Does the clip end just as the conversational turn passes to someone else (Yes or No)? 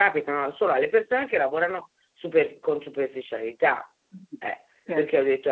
No